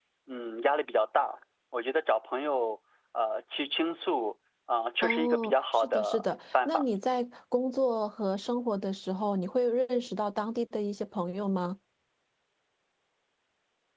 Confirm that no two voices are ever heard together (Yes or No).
No